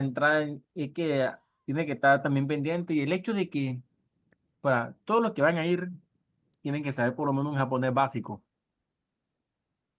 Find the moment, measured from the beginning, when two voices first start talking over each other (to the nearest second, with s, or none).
none